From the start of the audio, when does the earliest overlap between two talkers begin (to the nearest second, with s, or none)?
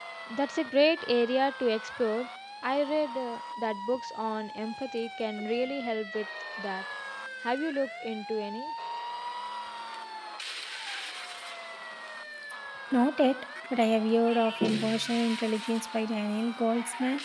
none